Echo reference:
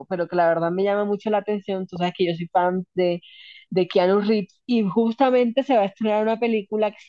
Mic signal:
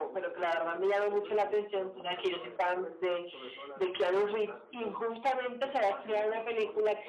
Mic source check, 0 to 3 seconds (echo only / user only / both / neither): both